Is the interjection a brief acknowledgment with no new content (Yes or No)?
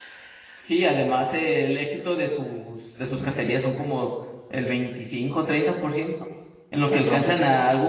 Yes